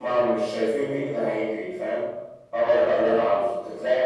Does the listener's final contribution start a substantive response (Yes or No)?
No